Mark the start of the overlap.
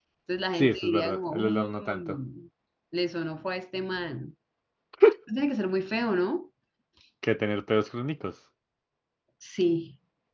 0.5 s

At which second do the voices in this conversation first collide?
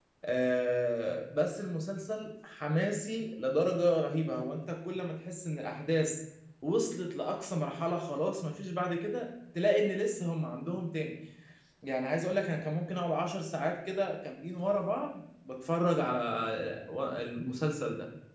none

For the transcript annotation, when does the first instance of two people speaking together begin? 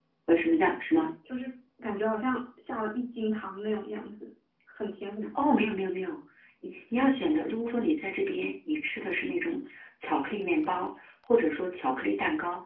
none

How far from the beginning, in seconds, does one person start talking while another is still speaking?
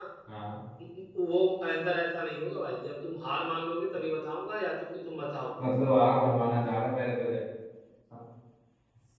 none

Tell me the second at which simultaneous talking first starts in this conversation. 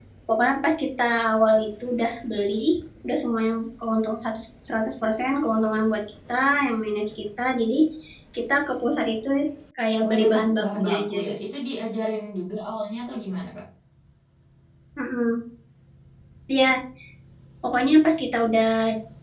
10.0 s

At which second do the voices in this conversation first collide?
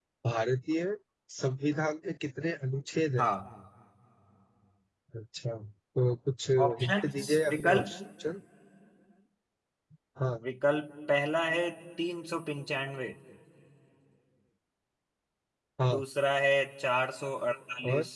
6.6 s

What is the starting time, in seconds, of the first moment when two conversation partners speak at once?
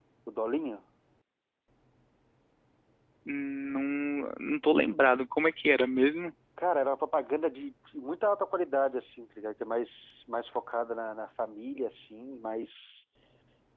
none

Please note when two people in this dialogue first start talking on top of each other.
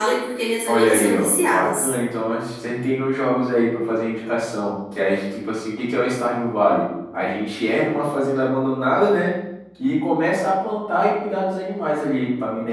0.7 s

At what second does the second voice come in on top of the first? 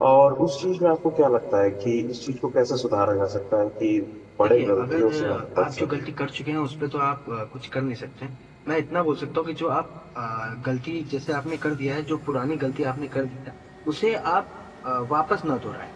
4.4 s

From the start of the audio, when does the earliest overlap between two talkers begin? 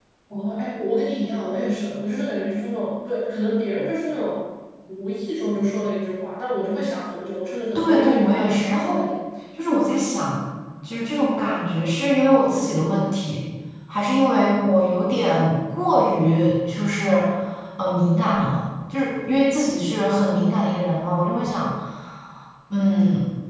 7.8 s

